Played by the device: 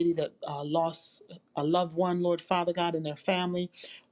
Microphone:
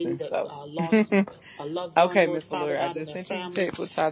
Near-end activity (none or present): present